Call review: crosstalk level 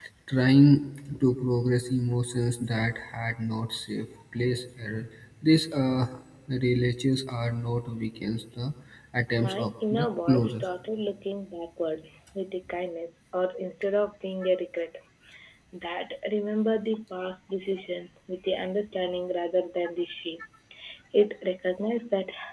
present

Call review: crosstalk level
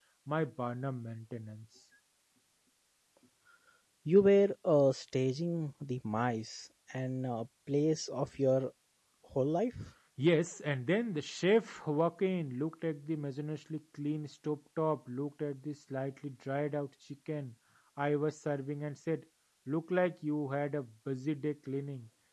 none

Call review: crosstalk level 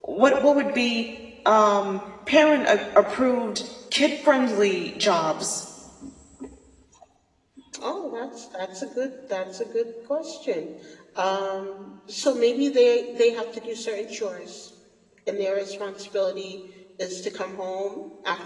none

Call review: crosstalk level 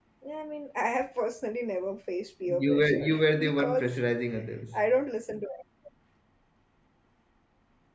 present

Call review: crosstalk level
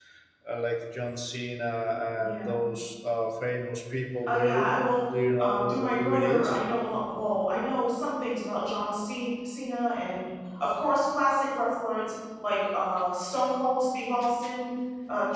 present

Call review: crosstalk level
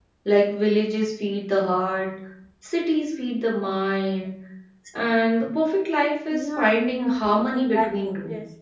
present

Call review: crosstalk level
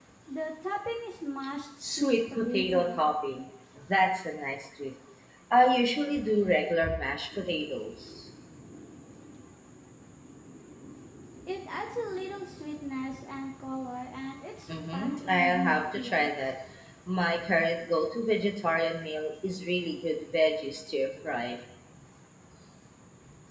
present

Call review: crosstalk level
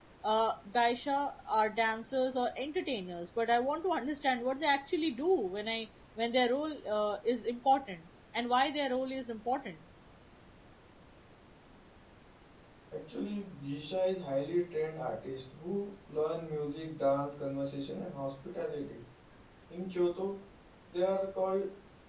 none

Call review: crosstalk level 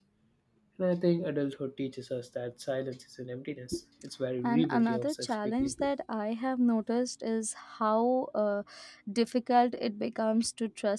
present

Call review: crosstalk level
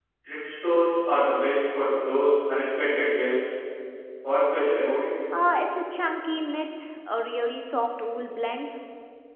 none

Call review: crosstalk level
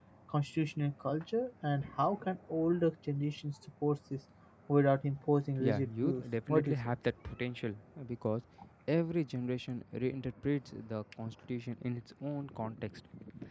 present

